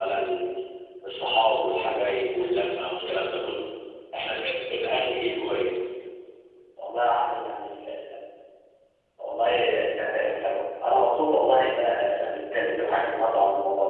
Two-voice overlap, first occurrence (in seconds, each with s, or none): none